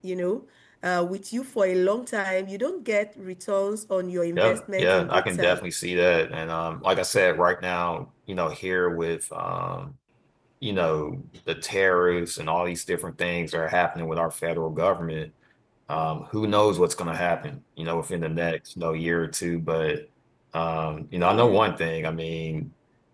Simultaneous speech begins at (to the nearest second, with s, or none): 4 s